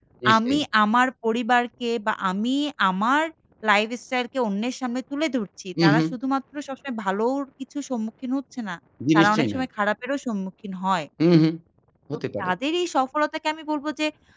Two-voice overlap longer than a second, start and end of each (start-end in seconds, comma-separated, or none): none